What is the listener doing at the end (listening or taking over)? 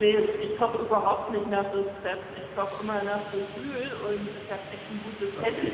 listening